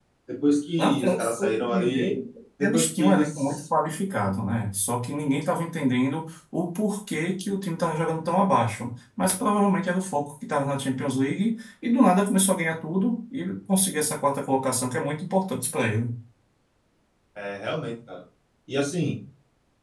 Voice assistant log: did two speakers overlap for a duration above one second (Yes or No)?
Yes